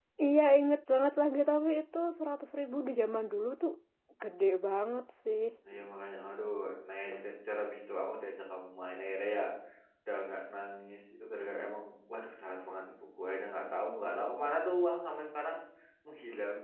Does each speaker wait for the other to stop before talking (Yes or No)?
Yes